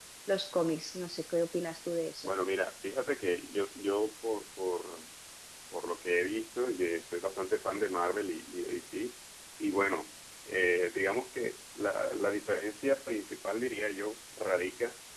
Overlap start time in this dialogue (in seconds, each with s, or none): none